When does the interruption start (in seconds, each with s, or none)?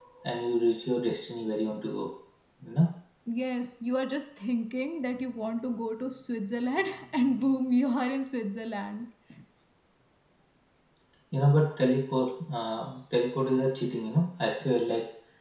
none